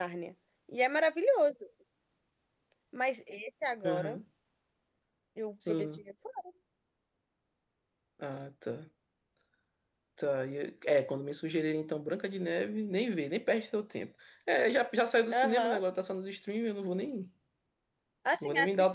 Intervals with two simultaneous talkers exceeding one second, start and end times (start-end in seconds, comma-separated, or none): none